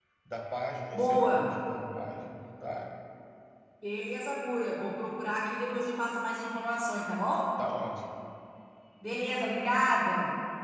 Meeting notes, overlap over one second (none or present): none